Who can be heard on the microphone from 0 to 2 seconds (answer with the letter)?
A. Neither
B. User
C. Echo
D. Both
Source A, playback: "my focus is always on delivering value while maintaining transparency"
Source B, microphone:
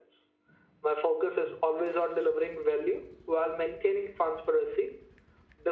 C